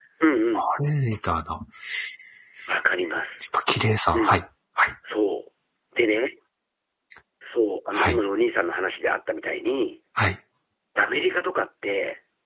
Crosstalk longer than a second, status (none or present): none